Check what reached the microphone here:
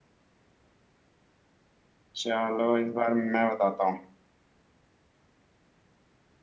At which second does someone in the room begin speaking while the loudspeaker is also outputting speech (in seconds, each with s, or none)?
2.2 s